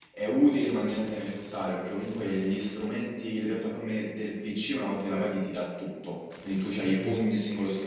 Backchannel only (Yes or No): Yes